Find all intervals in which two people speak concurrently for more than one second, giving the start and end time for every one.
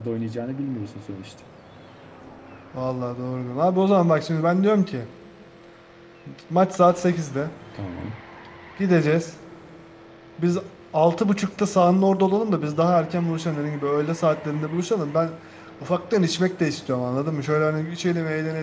none

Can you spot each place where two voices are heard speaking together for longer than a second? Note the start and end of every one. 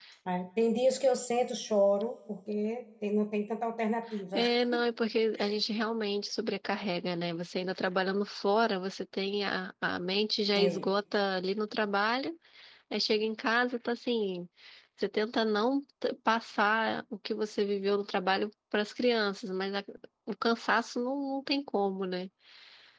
none

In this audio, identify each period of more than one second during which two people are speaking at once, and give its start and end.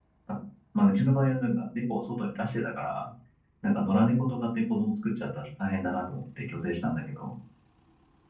none

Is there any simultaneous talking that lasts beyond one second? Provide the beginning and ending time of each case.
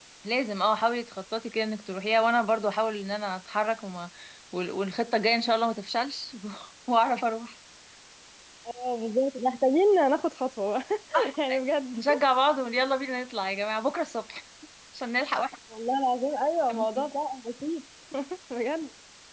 none

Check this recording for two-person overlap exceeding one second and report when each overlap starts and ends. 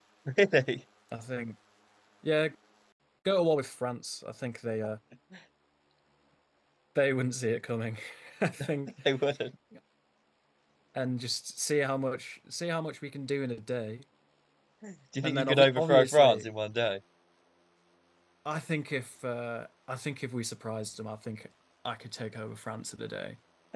15.2-16.5

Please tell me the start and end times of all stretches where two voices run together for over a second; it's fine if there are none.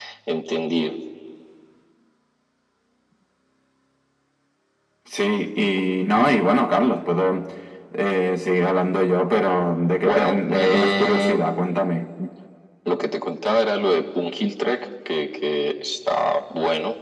10.0-11.5

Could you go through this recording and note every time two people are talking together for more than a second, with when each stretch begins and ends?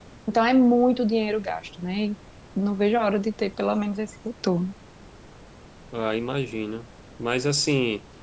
none

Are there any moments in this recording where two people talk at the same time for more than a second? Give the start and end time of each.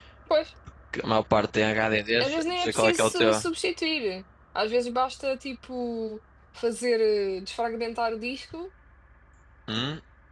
2.2-3.4

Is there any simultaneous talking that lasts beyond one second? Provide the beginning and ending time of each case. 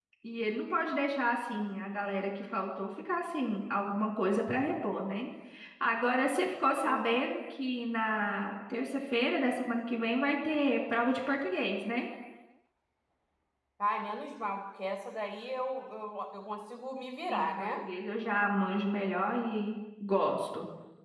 none

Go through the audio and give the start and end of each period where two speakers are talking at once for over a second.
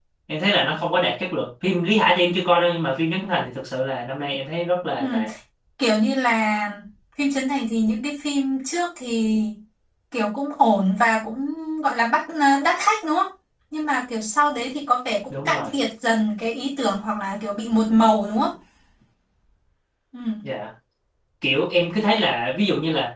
none

